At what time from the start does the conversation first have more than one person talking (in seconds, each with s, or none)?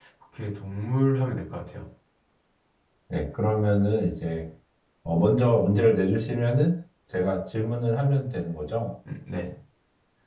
none